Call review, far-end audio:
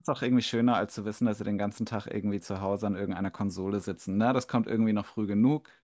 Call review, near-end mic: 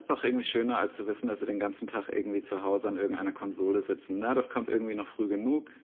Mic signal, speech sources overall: echo only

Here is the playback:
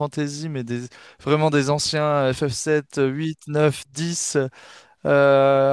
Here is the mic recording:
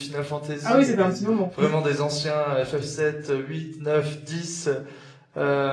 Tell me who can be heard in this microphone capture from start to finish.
both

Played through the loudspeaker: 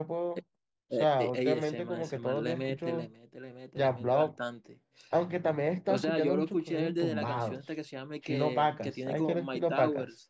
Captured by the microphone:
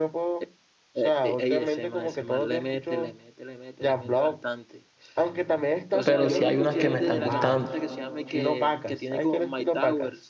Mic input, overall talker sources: both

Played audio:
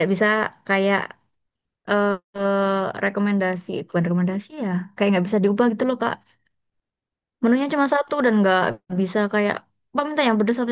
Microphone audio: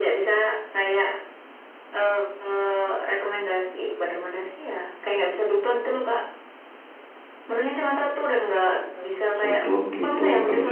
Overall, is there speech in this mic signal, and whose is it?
both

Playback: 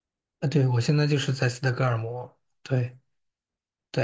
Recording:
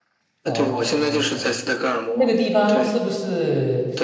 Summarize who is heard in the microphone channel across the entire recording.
both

